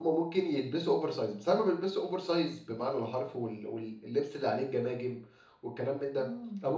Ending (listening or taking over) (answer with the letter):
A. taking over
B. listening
B